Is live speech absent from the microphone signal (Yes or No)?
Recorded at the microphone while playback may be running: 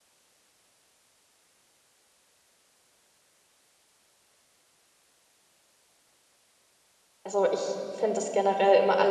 No